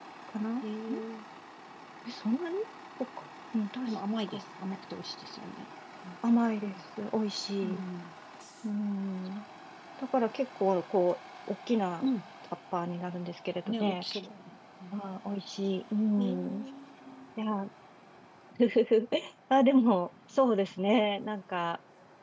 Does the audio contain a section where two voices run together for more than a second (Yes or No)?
No